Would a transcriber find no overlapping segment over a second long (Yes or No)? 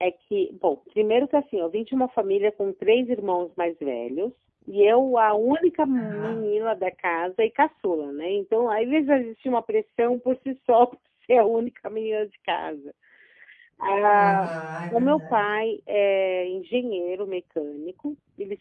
Yes